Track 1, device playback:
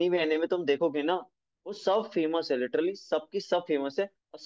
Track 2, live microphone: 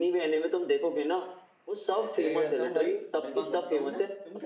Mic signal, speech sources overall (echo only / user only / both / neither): both